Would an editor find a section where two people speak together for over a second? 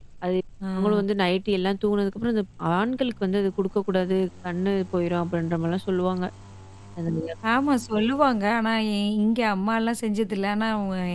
No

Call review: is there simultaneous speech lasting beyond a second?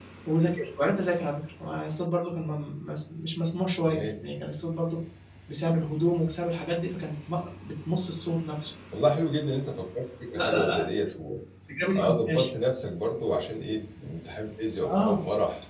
No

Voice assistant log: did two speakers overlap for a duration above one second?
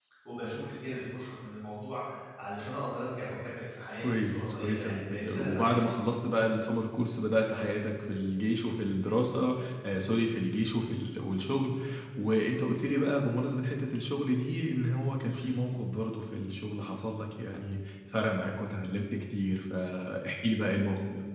Yes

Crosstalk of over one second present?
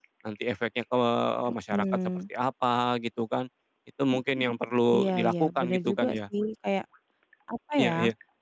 Yes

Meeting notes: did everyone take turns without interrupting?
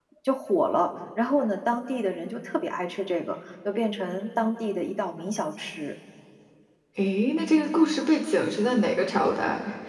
Yes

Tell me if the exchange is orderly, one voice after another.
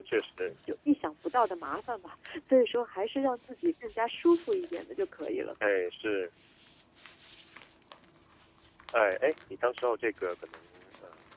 Yes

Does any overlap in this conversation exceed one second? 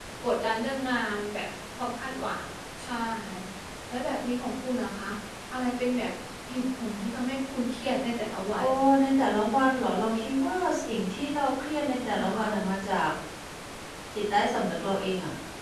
No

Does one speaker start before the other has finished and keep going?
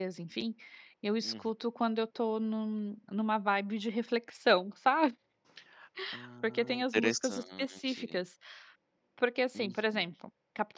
Yes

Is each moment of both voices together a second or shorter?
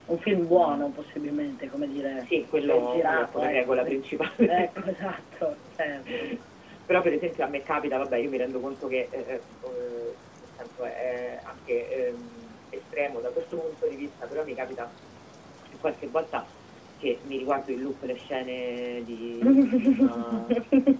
No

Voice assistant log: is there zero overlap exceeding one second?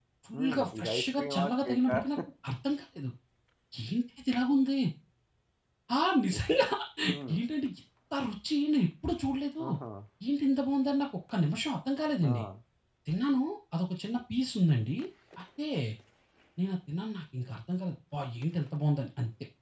No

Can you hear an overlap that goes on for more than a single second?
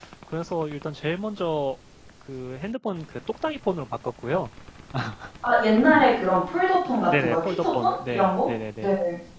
Yes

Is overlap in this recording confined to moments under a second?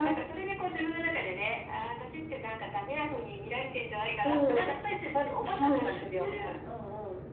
No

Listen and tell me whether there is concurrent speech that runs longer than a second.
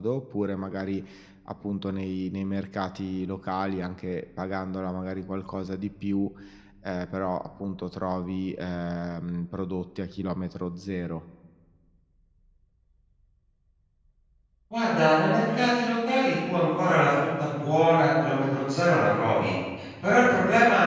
No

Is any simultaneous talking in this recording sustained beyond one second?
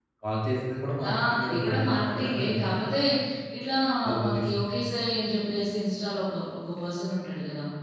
Yes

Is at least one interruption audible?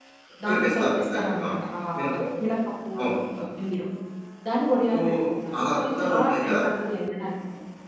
Yes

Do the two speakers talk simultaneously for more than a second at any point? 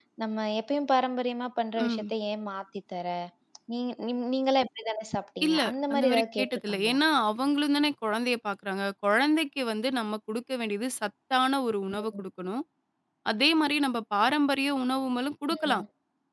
Yes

